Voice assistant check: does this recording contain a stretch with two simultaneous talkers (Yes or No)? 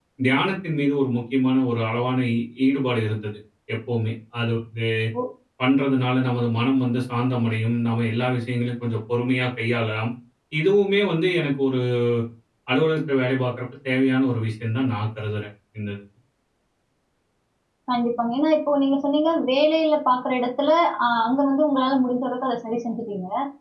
No